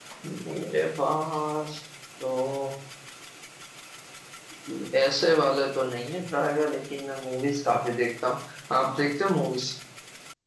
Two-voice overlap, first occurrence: none

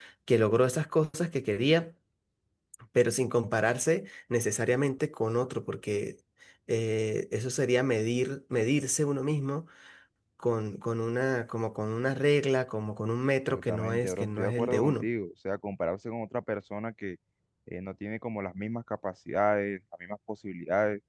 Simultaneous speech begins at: 13.5 s

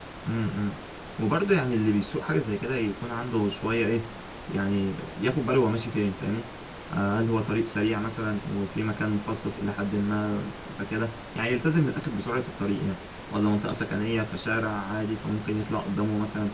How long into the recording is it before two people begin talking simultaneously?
none

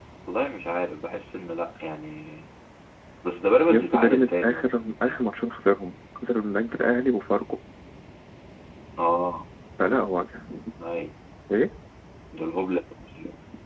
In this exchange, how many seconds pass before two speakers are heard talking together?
3.7 s

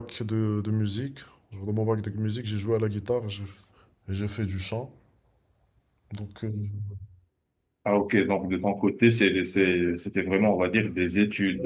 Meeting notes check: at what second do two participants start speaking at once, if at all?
none

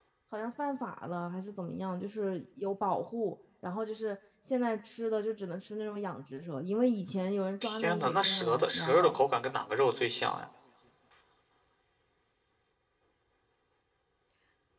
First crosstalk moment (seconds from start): 7.6 s

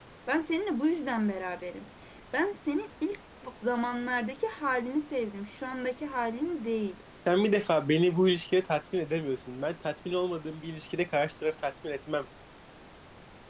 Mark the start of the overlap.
none

